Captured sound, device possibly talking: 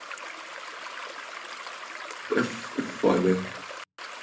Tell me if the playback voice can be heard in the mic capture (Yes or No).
No